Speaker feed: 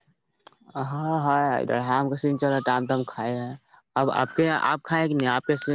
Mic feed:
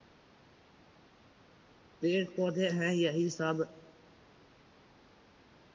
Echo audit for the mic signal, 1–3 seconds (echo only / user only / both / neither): user only